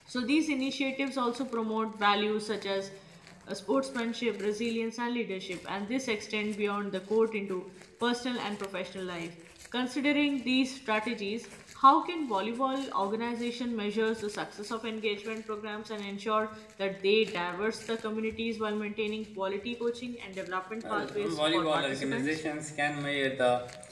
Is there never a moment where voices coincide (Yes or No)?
No